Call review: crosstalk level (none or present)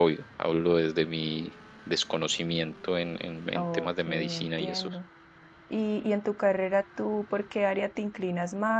present